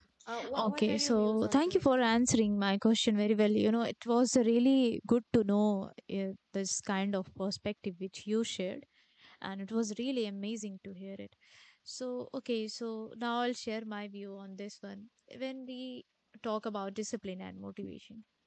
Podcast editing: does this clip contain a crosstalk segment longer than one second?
Yes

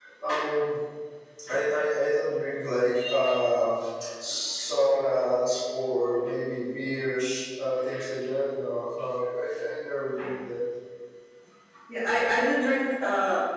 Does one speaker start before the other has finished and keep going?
No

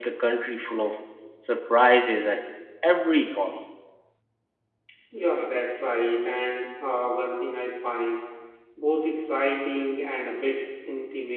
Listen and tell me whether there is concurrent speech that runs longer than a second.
No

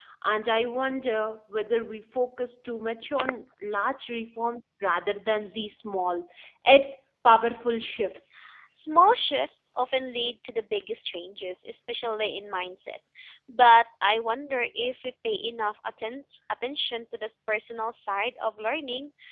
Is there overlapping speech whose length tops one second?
No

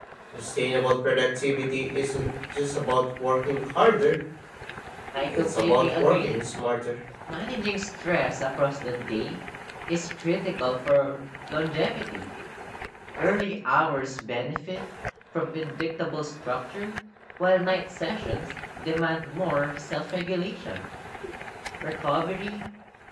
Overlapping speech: Yes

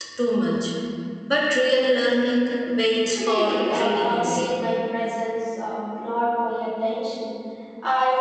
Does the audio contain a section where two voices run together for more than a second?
Yes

